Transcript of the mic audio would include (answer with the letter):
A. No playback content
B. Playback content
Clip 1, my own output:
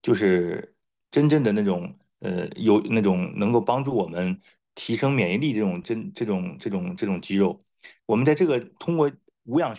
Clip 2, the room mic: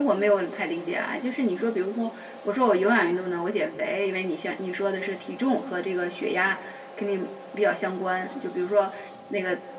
A